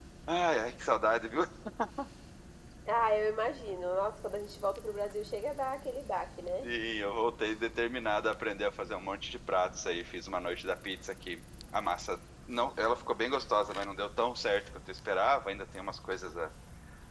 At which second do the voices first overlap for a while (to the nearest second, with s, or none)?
none